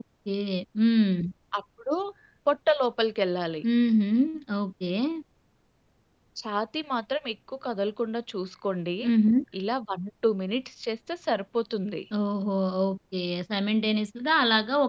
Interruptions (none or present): none